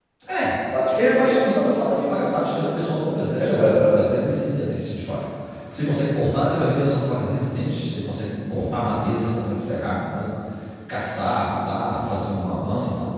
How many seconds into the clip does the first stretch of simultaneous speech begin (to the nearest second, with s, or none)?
1 s